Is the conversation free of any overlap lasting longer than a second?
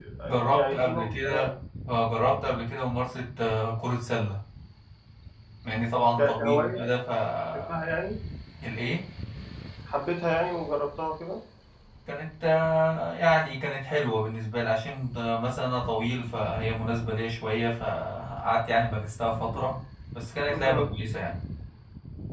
No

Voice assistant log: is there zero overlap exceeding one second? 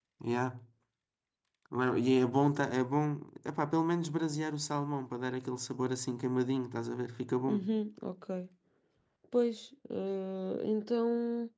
Yes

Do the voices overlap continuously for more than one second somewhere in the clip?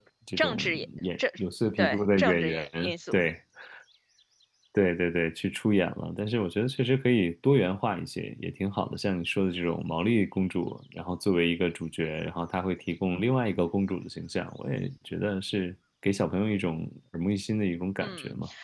Yes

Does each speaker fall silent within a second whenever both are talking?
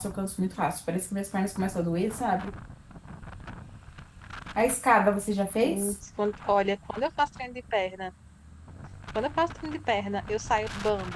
Yes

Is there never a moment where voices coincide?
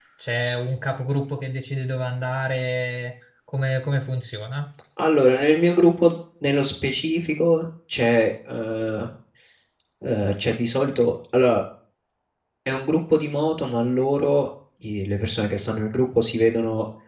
Yes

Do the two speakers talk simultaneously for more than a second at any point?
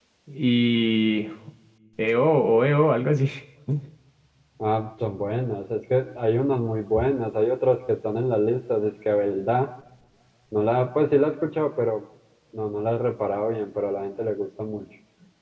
No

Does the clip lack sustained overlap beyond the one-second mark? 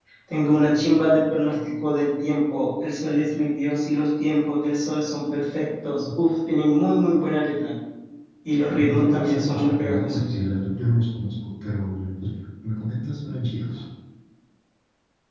No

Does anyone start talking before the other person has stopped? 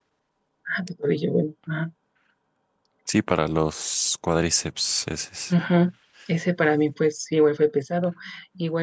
No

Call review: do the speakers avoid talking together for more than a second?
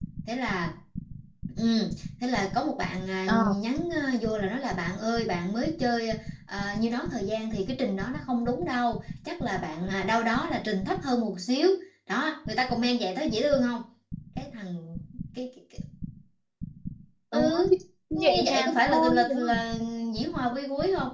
No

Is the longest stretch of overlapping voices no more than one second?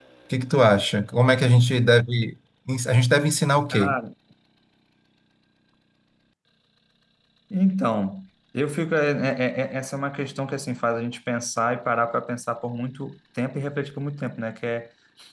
Yes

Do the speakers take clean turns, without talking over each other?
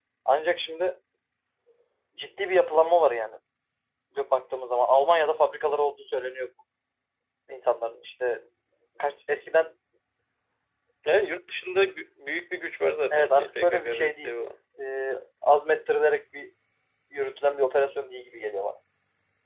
No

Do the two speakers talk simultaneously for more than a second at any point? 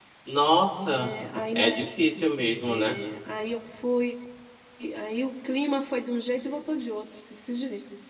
No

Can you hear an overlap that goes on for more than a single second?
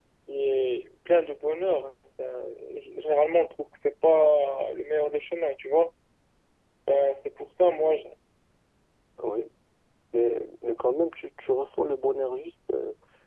No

